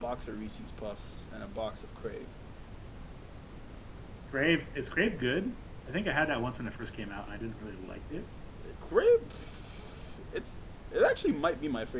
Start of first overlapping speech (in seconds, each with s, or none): none